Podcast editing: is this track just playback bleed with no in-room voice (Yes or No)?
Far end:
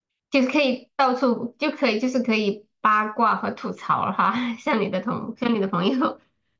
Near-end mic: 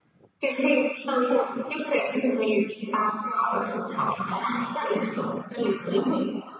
Yes